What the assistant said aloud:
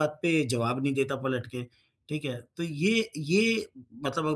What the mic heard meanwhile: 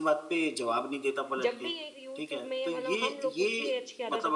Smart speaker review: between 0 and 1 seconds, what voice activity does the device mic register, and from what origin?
echo only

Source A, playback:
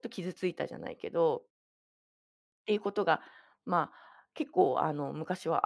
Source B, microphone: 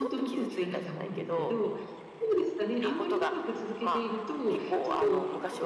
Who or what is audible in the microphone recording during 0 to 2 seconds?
both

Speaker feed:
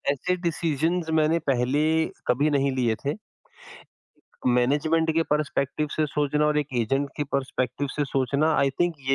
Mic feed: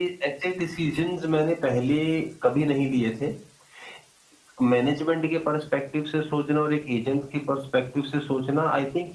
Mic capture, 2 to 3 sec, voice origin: echo only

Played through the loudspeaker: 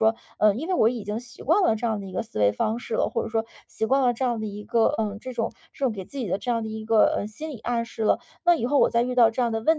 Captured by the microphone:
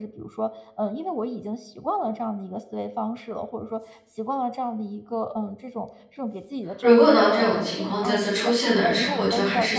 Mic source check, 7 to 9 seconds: both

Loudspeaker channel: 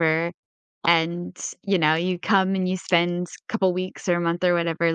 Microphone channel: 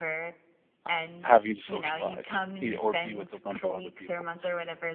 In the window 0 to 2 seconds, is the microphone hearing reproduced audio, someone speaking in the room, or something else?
both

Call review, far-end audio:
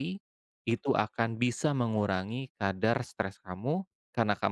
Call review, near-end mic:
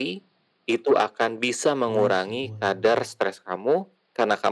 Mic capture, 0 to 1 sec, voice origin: echo only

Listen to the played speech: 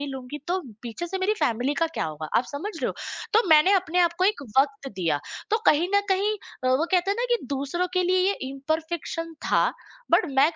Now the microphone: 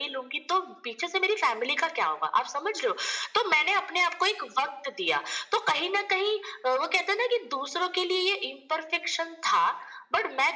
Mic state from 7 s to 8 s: echo only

